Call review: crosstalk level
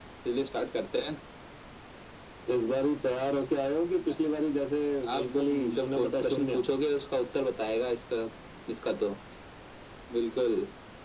present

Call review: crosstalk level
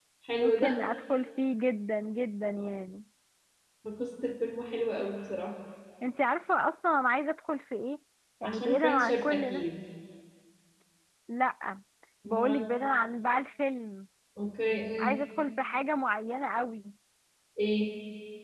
present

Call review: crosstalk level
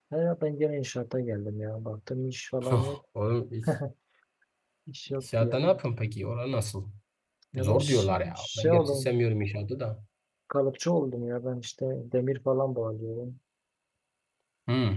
present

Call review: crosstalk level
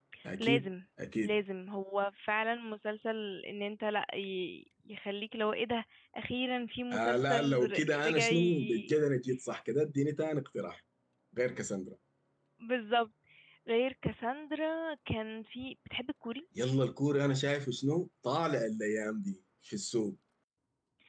present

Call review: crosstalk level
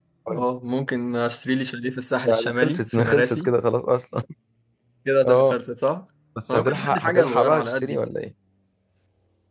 present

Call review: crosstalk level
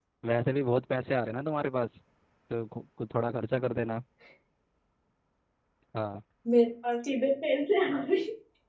none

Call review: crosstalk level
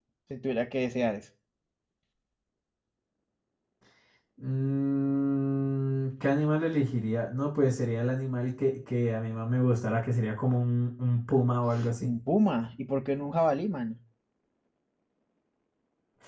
none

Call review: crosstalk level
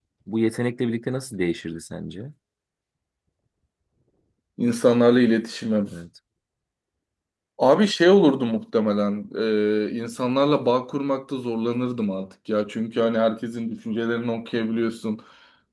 none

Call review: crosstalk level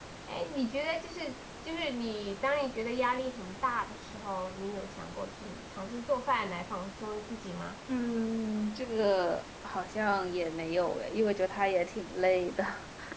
none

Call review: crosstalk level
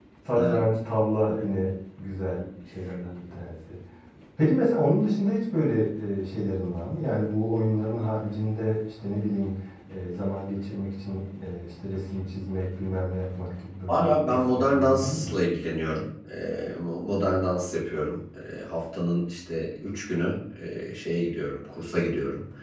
present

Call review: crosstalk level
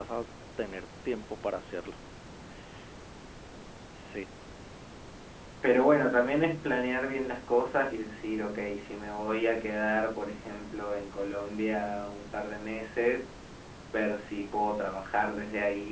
none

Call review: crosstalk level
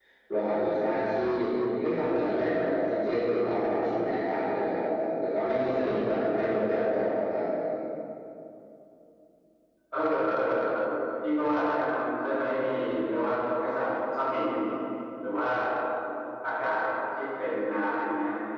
none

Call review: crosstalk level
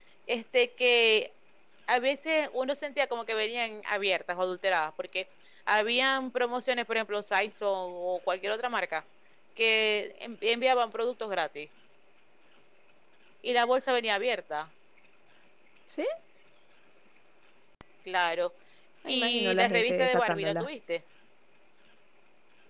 present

